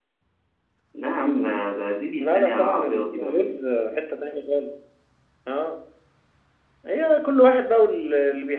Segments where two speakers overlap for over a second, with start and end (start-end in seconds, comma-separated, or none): 2.2-3.5